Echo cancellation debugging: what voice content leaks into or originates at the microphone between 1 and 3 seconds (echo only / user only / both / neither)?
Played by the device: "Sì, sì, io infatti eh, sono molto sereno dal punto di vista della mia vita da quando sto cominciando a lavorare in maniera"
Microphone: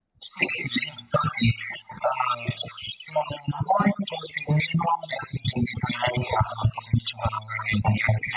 echo only